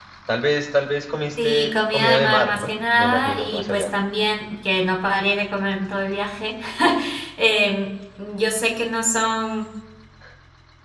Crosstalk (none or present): present